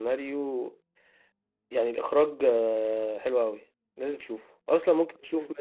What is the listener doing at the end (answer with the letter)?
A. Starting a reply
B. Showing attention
B